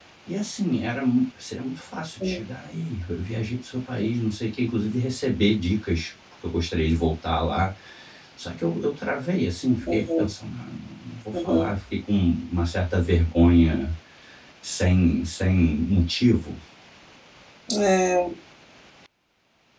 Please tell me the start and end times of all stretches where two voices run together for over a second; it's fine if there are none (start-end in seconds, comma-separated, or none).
none